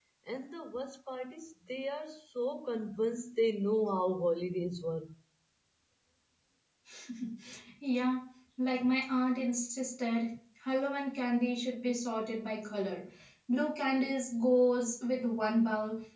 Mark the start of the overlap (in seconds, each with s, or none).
none